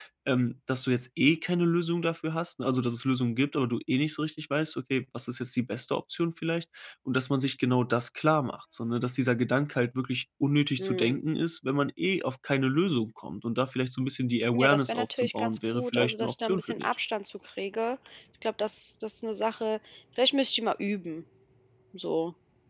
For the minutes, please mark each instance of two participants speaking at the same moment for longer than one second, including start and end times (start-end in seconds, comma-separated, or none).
14.5-16.9